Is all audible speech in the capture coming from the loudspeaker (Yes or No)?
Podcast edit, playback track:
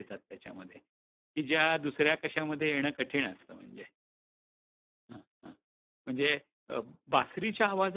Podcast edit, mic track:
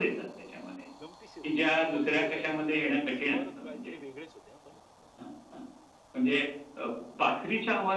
No